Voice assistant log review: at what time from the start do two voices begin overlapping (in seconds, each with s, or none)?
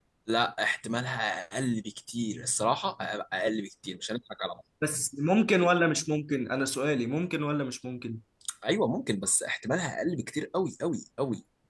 none